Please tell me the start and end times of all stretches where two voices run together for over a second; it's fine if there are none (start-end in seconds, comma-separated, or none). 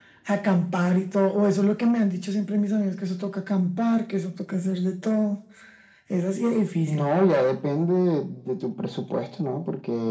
none